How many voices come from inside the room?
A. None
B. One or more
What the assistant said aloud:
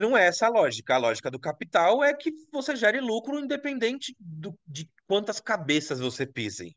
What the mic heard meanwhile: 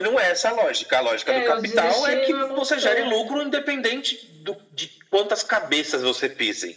B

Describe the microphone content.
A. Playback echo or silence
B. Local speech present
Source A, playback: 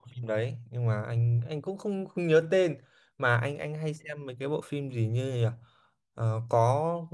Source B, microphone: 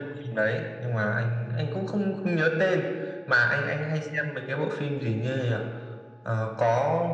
A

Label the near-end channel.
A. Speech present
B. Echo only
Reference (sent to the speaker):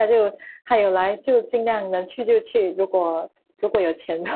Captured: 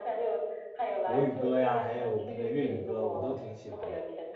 A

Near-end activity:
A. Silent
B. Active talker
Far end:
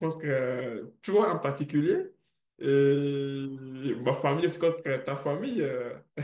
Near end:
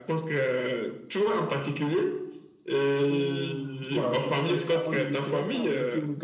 B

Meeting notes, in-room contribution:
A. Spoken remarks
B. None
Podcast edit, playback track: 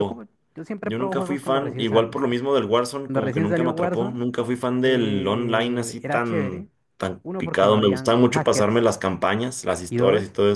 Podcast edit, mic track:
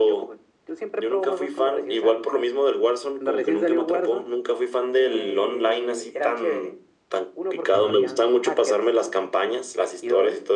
A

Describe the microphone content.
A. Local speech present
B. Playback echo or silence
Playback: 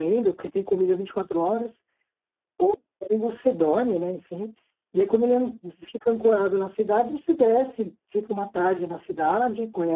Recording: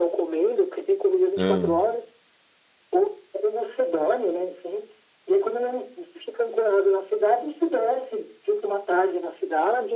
A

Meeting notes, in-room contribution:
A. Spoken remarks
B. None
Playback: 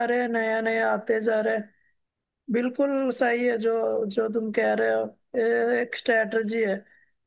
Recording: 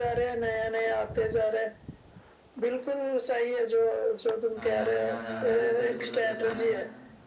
A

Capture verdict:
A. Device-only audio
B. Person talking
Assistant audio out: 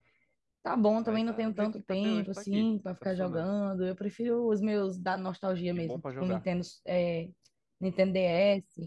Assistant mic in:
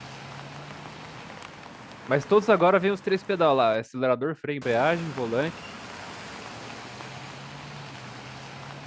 B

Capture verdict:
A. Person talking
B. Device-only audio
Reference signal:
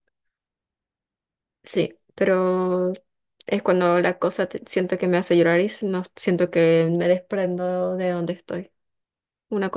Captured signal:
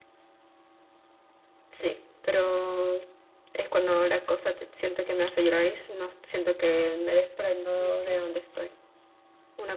A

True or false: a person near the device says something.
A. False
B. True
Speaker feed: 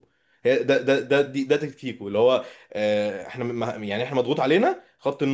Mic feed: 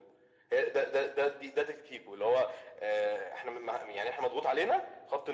A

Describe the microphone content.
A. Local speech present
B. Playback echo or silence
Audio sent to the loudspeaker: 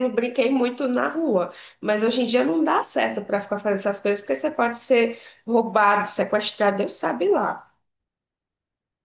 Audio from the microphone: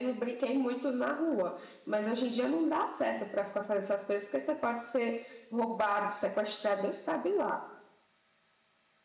B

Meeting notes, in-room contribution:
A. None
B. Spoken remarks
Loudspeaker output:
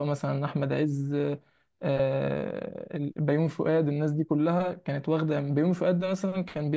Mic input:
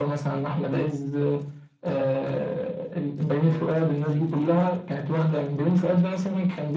B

